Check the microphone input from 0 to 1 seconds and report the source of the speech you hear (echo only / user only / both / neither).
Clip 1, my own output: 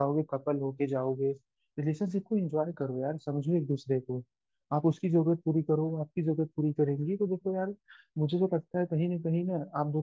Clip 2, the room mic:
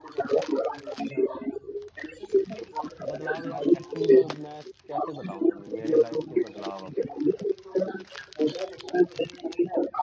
echo only